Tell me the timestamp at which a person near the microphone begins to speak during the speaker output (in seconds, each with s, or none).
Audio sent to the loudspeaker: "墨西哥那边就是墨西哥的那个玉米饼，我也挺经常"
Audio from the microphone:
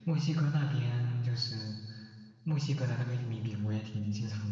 none